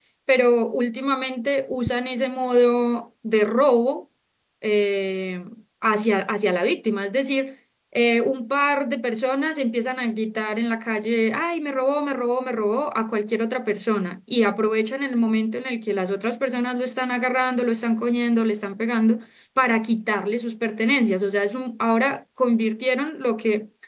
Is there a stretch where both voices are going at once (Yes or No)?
No